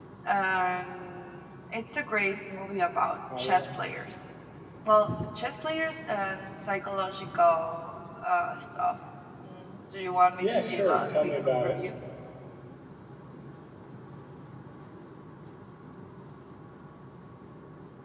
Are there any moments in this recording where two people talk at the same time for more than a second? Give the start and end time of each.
10.4-11.8

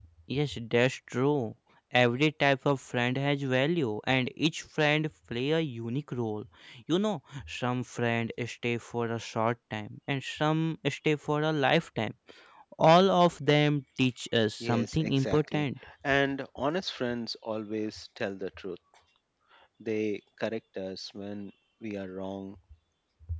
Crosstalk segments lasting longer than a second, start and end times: 14.6-15.8

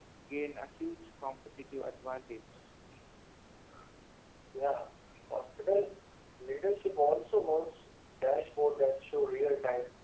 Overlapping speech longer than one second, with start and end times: none

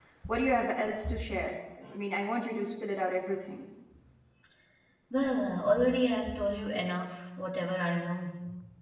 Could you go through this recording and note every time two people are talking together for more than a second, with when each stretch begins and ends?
none

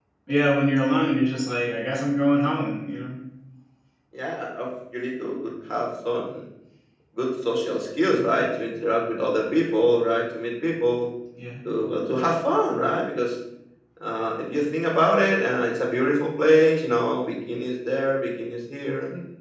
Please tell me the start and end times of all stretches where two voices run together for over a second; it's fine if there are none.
none

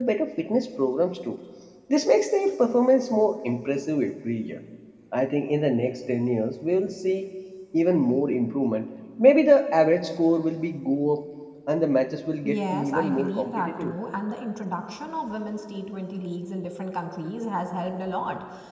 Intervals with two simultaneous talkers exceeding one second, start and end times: 12.5-13.9

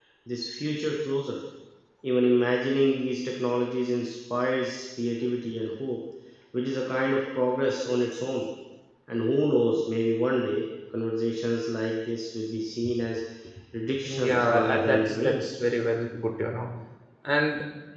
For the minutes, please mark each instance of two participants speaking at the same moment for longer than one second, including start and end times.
14.0-15.7

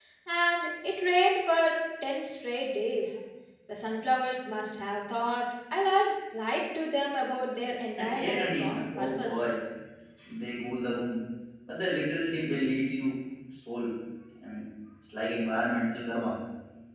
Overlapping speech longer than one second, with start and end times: 8.0-9.4

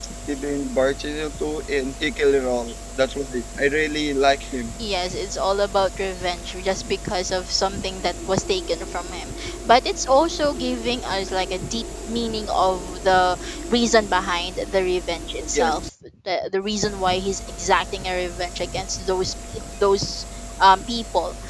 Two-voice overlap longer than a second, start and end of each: none

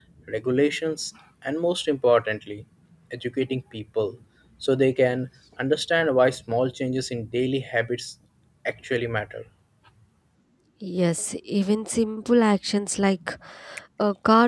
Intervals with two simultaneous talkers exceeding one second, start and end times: none

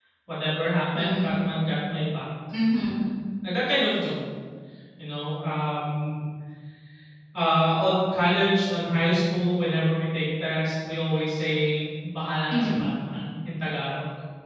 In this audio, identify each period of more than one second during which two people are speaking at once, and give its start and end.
none

